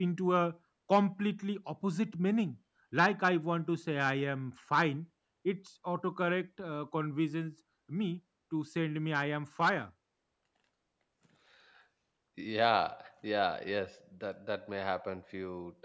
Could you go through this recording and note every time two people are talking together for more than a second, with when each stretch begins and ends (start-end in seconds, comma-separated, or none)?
none